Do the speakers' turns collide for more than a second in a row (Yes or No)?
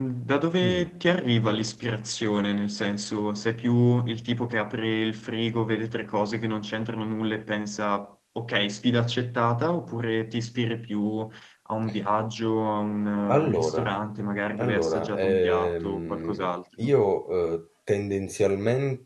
Yes